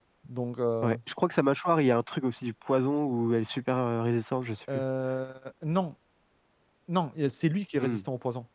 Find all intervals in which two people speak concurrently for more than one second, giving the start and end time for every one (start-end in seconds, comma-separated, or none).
none